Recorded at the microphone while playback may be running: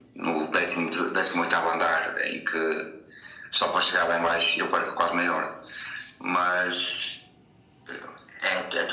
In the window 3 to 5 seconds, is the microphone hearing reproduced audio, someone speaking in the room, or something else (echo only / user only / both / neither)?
echo only